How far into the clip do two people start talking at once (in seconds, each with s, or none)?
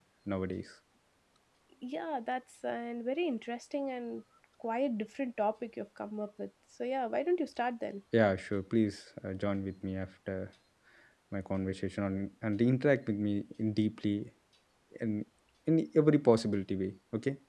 none